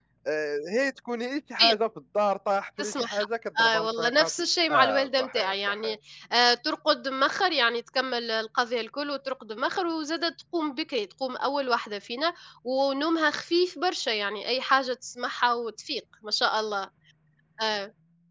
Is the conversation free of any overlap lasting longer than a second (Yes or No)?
No